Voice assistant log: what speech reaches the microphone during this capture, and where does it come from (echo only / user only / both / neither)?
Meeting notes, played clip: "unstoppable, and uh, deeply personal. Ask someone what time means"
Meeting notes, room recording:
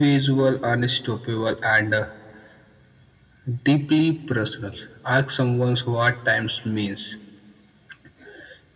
echo only